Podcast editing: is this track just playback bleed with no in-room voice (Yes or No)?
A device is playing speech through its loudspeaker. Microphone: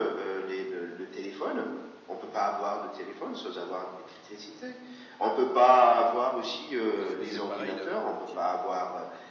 No